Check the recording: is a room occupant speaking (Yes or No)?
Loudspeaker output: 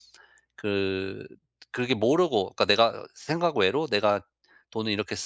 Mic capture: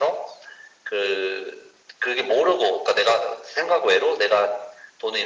No